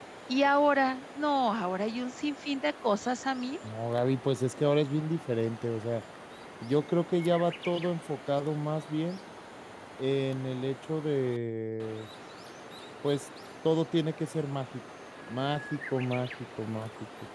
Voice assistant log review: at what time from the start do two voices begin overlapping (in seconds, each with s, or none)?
none